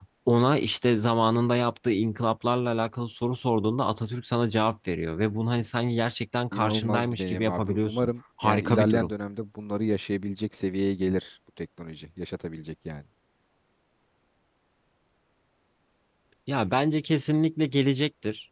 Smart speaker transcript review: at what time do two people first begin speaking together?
6.5 s

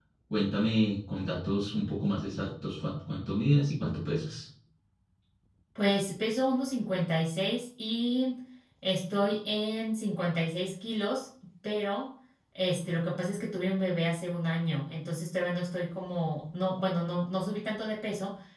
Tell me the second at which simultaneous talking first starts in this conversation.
none

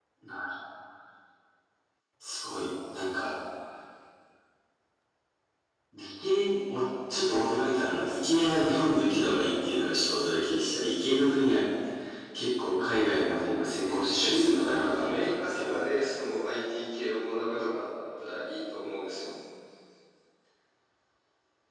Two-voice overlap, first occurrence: 13.8 s

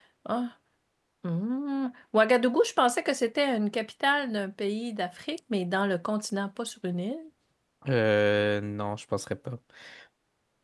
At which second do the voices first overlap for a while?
none

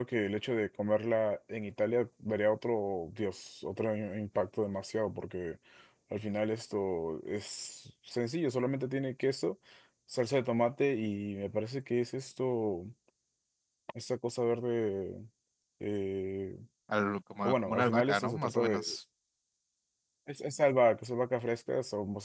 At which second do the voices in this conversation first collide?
17.4 s

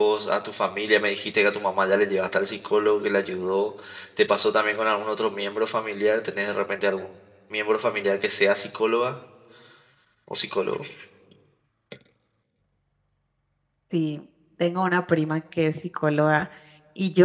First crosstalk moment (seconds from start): none

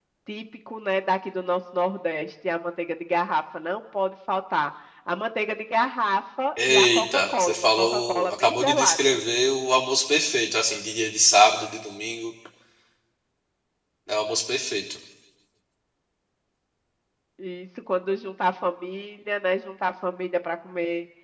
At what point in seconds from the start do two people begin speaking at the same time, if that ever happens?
6.6 s

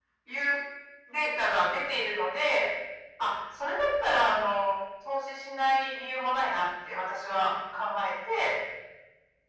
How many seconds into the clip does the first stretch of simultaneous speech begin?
none

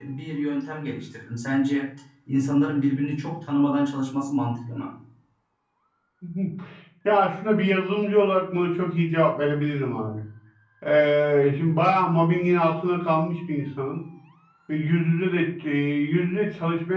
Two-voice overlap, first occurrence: none

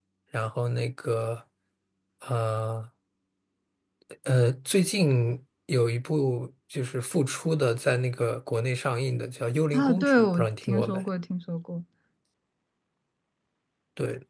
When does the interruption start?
9.7 s

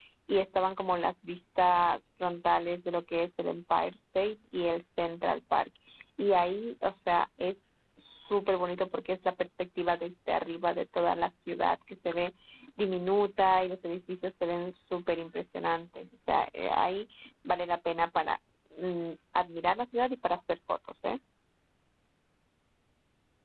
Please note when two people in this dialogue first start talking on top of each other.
none

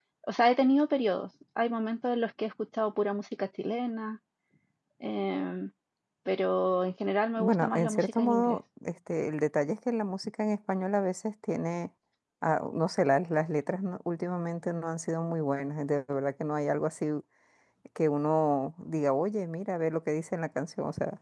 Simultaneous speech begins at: 7.4 s

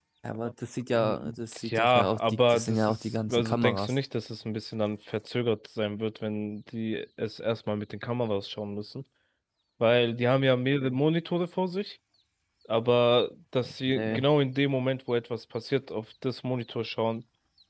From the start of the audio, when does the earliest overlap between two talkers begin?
0.9 s

